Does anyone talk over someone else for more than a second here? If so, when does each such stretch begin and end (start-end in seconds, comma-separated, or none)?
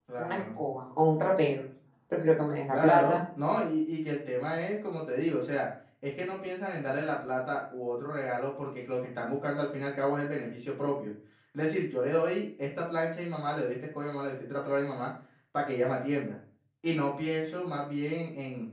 none